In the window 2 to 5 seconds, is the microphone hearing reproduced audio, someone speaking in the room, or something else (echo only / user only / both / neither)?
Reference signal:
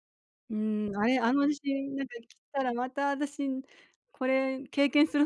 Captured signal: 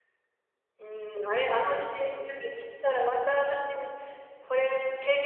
echo only